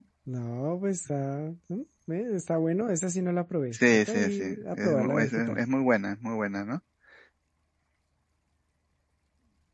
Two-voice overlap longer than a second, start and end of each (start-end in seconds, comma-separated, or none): 3.7-5.6